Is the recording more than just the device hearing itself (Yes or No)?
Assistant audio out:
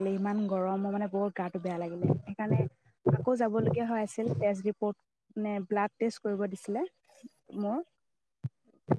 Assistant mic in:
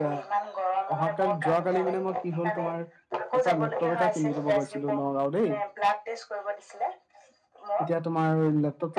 Yes